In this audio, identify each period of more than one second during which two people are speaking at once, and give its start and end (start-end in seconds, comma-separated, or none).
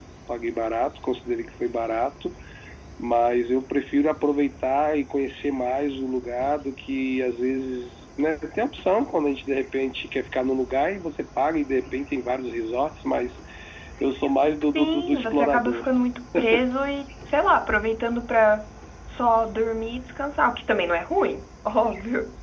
14.6-15.9